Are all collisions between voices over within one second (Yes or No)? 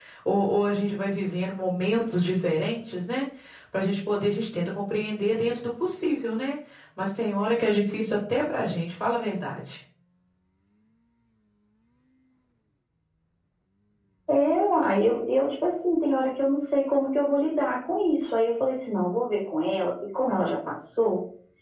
Yes